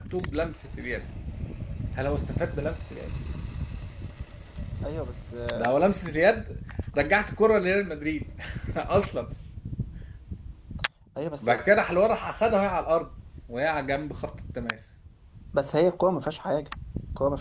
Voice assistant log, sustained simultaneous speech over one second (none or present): none